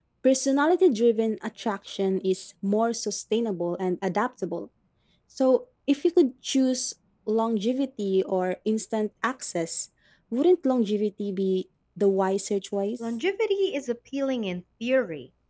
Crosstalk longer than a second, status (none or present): none